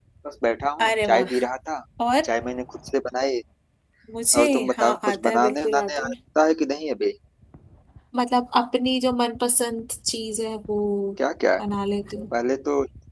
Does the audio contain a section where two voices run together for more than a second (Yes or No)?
Yes